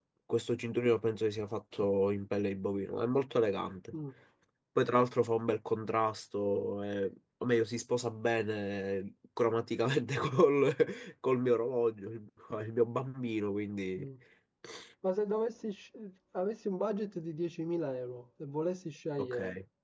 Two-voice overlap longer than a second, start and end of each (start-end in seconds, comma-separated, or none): none